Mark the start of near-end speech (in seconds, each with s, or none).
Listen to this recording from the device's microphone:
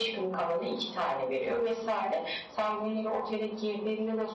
none